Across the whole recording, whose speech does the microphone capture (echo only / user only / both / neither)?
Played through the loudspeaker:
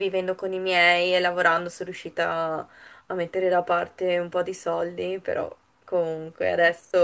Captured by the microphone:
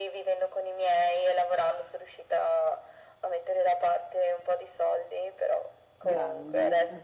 both